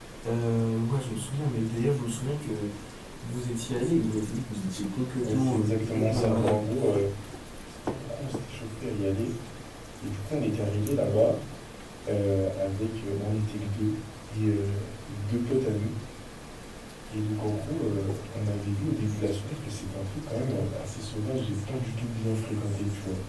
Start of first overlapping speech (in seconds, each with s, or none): 5.2 s